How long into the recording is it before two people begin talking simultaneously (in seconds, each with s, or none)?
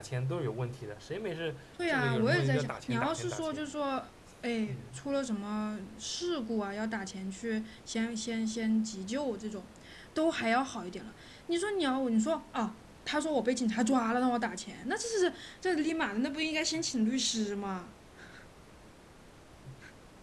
1.9 s